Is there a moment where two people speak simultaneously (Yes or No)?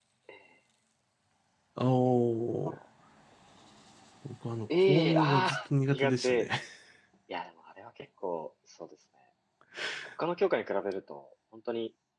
Yes